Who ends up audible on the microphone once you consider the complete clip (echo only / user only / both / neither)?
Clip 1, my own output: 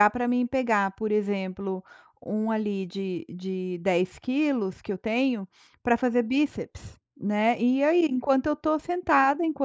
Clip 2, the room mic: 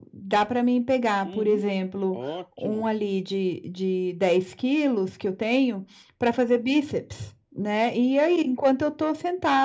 both